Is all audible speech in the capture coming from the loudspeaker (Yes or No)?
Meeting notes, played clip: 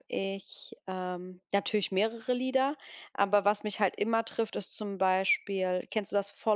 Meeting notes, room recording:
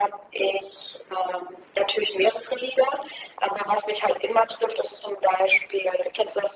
Yes